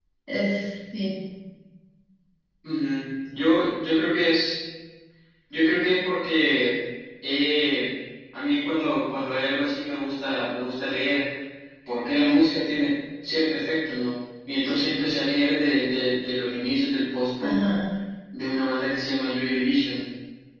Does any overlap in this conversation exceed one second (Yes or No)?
No